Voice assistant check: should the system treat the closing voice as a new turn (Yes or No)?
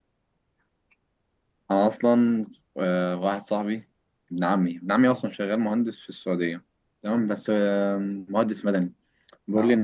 No